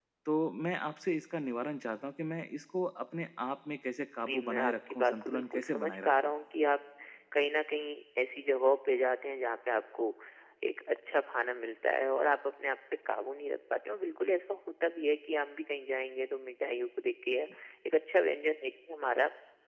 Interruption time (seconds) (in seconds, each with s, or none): 4.2 s